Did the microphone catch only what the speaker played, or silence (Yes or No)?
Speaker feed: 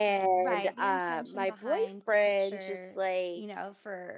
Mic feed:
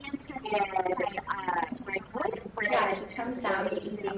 No